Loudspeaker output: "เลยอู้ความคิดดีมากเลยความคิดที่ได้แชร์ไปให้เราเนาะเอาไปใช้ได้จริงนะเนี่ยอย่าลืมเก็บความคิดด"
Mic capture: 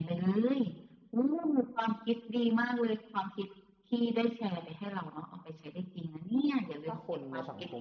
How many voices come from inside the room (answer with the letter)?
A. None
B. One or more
B